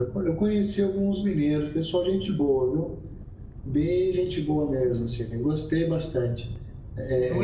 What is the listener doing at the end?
taking over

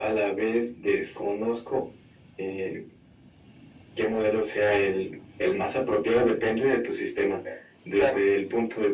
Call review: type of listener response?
listening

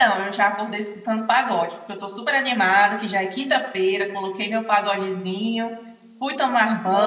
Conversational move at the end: listening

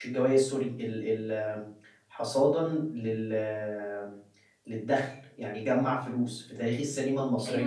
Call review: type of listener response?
taking over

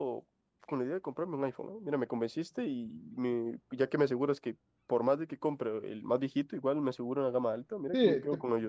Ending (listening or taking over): taking over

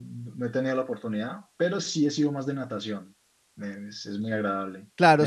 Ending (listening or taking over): taking over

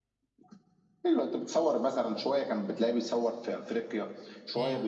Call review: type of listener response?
listening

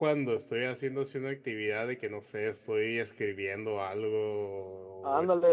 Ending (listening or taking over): taking over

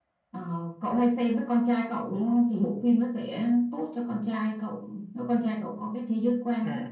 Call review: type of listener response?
taking over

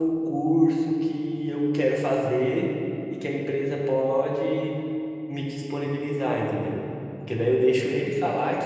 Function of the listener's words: listening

